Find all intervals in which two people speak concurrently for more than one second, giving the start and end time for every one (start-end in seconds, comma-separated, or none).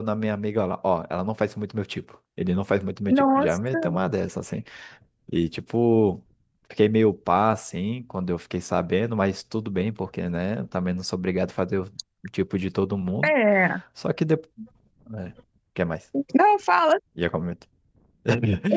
none